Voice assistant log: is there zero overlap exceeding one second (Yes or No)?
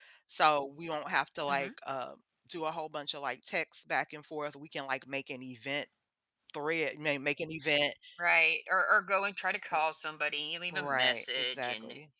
No